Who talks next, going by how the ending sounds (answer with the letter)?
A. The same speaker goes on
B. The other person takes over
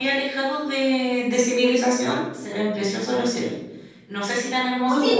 A